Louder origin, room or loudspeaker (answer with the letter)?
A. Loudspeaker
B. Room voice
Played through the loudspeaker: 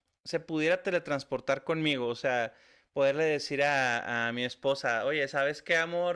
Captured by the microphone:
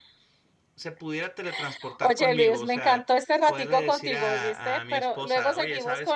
B